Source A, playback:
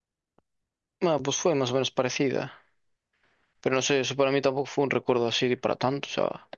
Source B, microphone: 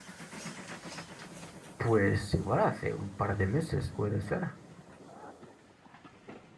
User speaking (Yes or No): Yes